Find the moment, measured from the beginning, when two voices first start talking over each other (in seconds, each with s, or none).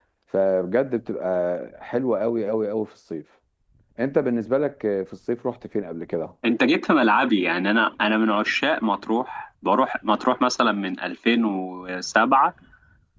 none